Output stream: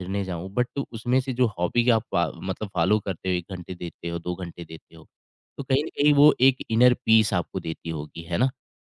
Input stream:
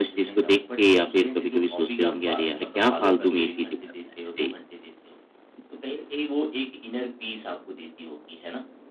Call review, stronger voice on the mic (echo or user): user